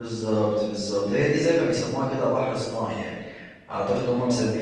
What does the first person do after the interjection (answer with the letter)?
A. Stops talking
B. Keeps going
B